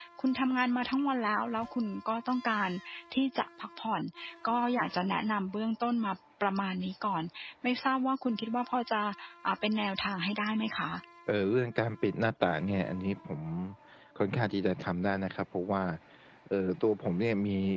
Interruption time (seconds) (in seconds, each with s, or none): none